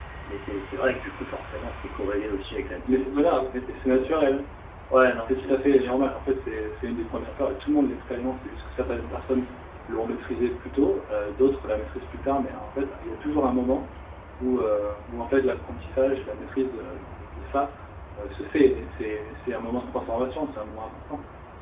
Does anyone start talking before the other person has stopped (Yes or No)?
Yes